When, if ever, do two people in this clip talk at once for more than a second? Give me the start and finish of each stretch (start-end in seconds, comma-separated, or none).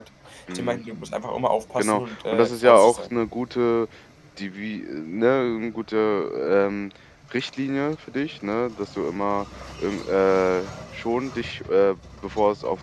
1.8-3.0